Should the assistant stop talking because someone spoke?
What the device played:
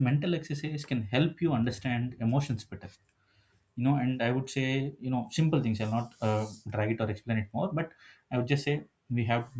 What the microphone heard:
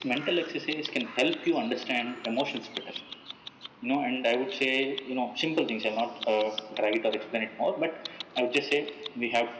No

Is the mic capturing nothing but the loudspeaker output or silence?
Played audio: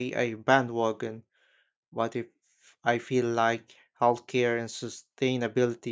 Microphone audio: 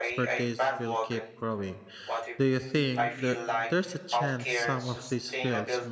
No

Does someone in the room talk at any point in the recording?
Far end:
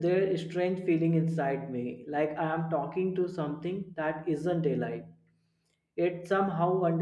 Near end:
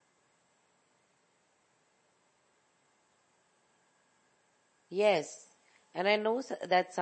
Yes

